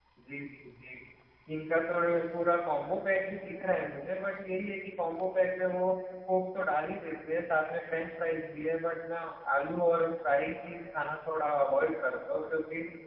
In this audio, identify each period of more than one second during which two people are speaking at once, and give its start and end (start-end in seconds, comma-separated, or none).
none